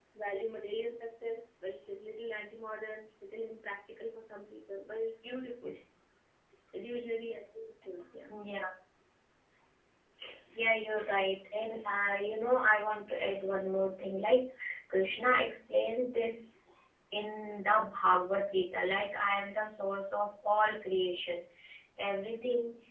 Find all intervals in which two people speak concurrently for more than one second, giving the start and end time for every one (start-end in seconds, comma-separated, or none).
none